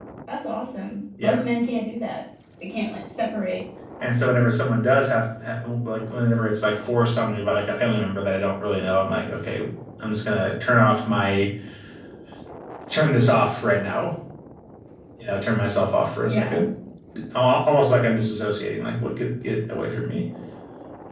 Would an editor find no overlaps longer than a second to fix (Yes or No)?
Yes